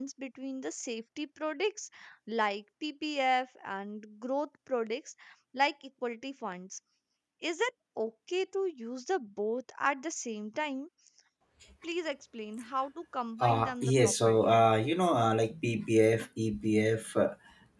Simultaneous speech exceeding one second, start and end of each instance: 13.4-14.6

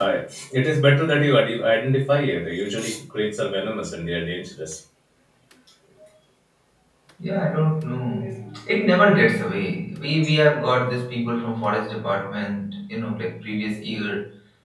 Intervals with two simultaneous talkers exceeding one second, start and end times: none

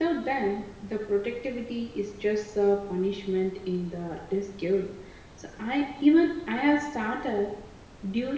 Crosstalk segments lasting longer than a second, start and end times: none

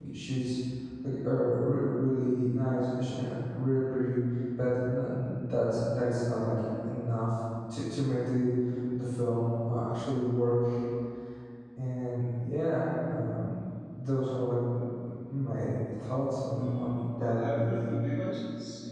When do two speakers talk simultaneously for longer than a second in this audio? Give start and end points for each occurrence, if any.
16.5-17.9

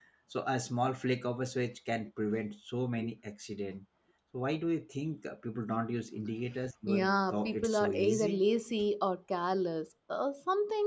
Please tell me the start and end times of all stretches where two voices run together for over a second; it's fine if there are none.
6.9-8.4

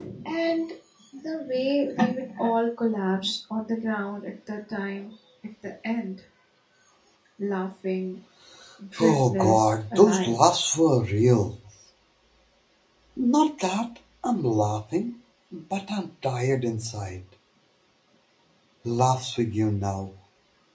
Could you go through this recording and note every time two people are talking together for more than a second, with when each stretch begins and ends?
9.0-10.4

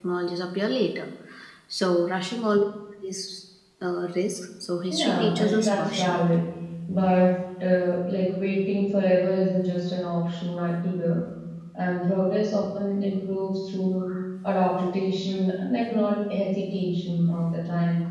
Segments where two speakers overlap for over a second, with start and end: 4.9-6.2

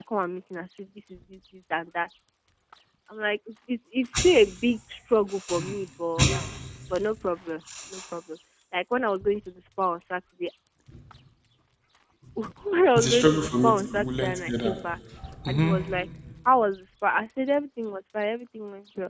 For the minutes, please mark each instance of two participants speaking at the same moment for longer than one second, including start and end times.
12.9-14.7

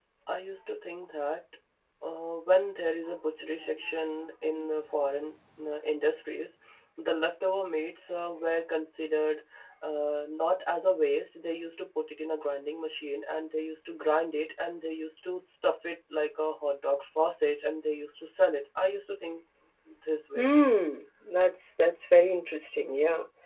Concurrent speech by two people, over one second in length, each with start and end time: none

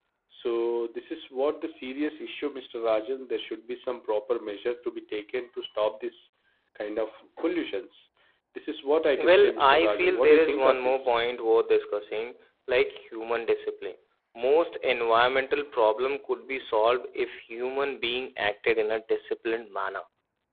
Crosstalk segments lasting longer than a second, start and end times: 9.3-11.1

